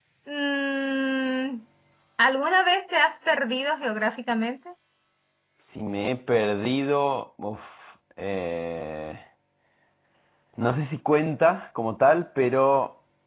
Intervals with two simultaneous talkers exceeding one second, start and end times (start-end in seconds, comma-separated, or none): none